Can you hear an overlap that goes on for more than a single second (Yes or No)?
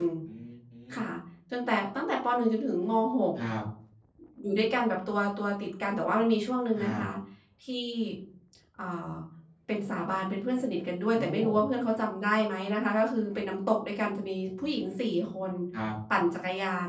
No